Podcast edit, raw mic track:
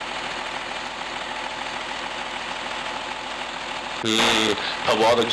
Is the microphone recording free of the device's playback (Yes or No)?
Yes